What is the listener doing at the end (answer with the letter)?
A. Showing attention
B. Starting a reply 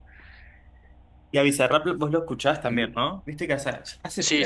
B